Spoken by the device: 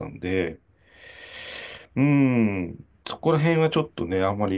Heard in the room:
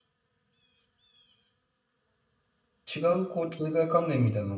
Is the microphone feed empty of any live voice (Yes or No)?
No